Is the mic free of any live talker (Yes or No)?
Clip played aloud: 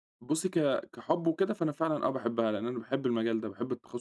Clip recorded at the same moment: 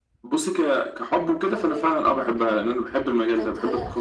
No